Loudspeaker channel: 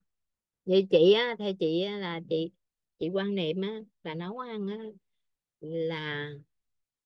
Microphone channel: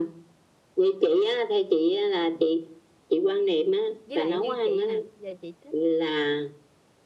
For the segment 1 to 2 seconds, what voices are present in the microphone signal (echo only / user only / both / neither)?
echo only